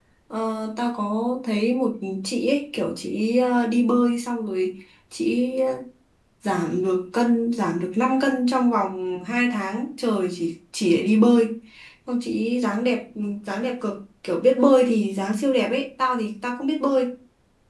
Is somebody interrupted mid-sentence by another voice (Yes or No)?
No